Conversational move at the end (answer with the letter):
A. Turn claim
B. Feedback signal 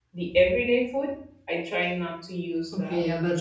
A